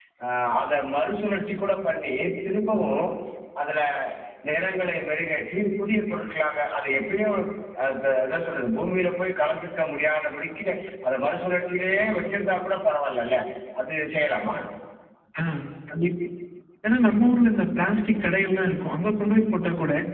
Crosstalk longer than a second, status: none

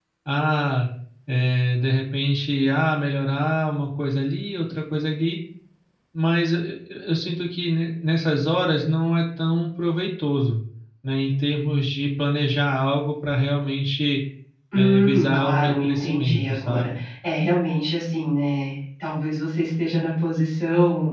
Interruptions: present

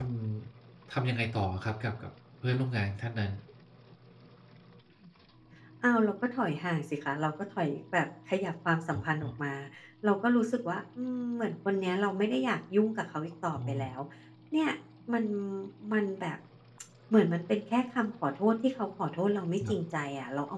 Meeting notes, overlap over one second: none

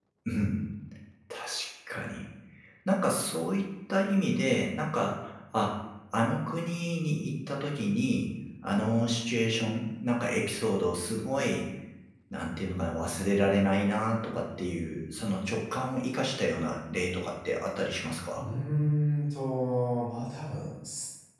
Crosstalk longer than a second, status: none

